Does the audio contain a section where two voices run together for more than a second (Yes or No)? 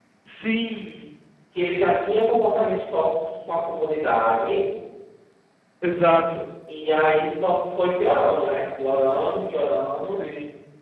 No